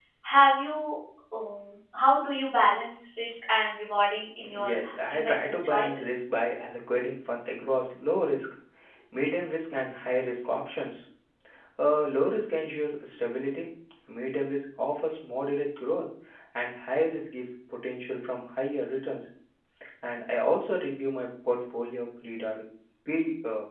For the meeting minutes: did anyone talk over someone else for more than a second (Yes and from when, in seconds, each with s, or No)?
Yes, from 4.4 s